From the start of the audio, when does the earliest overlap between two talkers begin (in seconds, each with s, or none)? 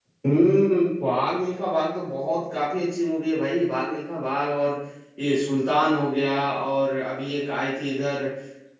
none